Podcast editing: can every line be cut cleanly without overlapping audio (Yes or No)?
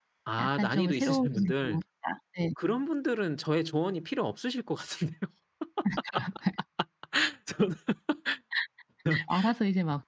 No